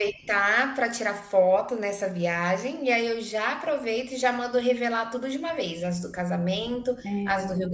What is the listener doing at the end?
listening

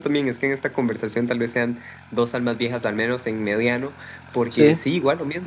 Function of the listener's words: listening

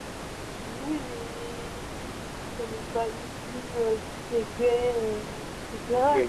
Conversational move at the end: taking over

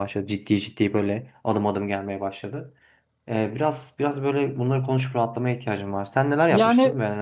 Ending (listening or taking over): taking over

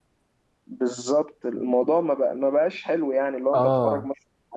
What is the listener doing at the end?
listening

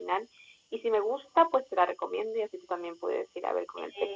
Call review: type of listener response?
taking over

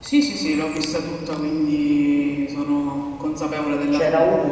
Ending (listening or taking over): taking over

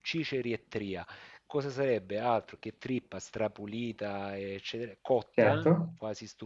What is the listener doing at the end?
listening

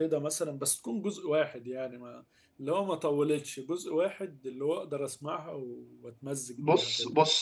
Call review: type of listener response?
taking over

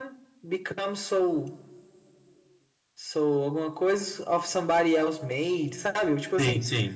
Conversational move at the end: listening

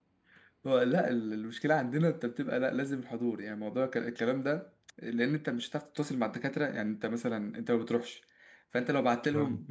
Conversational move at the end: listening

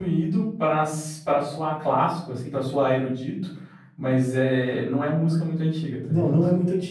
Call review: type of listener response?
taking over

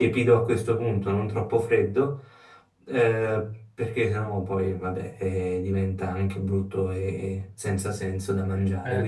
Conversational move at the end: taking over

